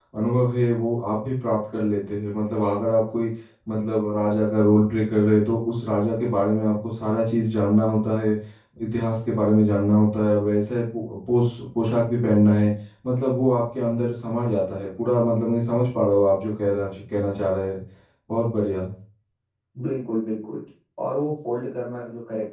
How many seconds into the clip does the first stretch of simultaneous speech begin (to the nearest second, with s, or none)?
none